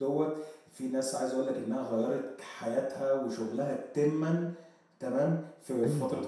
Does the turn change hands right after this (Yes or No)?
No